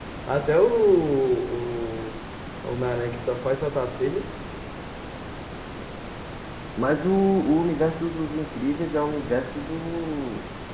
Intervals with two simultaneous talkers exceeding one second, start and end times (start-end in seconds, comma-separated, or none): none